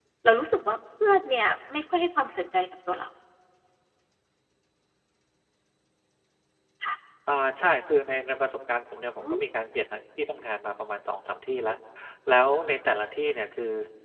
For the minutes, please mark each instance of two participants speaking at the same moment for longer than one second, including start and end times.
none

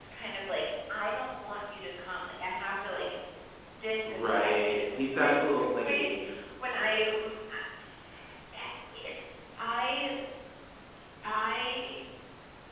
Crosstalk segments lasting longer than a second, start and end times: 4.1-6.1

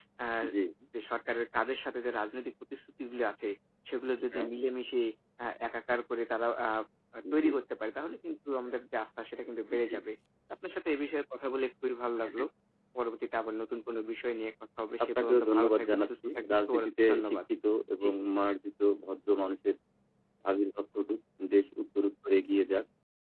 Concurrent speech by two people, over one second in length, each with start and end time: 15.0-17.4

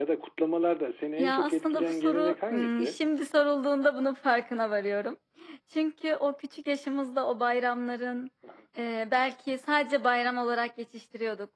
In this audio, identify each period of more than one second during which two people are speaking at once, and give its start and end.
1.2-3.0

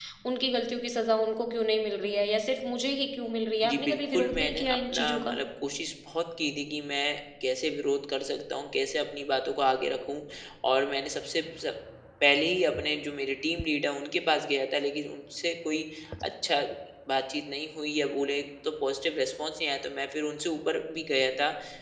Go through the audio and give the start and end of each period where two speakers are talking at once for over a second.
3.6-5.3

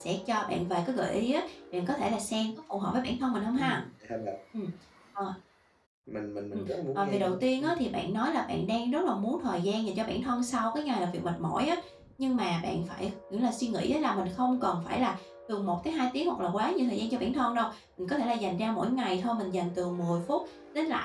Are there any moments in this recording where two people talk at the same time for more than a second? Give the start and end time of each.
6.5-7.8

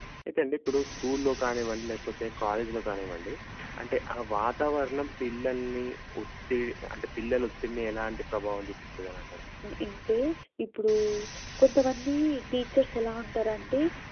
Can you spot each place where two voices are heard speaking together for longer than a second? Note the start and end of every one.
none

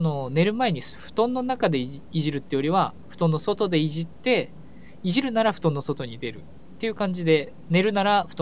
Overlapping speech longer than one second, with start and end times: none

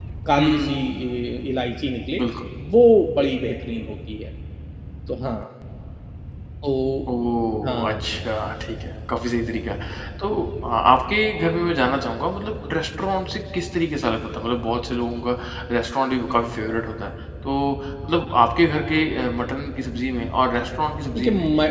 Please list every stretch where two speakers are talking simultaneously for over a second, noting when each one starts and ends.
none

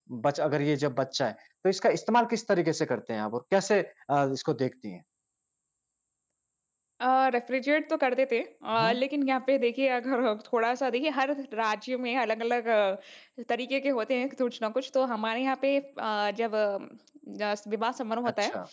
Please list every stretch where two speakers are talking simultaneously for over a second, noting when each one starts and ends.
none

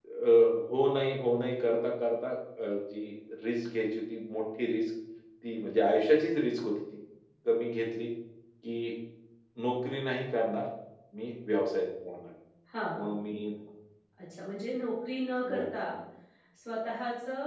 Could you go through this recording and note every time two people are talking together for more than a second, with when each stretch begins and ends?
none

